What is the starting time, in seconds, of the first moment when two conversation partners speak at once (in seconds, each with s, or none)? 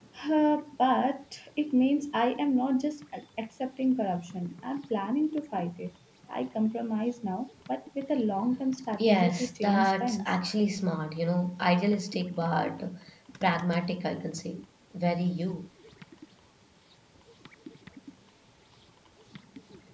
9.0 s